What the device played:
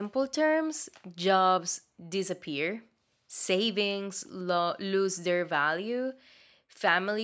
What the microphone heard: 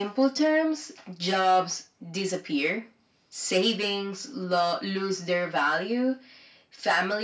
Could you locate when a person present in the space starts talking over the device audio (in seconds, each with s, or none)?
none